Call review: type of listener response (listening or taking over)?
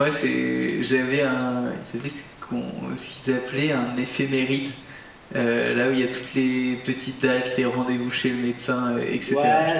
taking over